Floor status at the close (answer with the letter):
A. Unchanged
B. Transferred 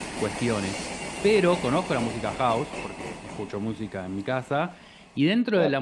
A